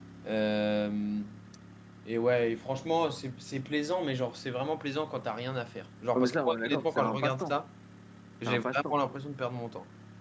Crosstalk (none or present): present